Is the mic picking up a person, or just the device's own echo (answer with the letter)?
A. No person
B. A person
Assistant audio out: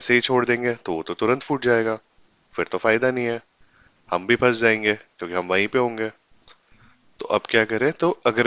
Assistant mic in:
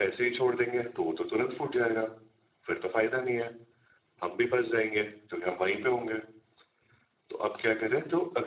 A